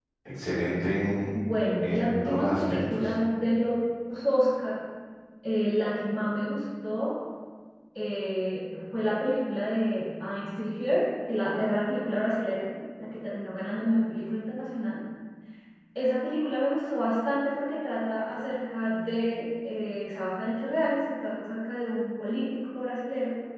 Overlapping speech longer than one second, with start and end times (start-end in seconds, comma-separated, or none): 1.8-3.1